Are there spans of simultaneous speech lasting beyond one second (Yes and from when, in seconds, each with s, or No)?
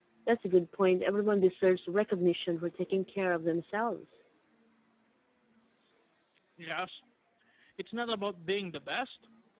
No